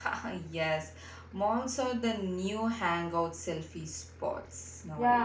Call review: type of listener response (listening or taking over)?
taking over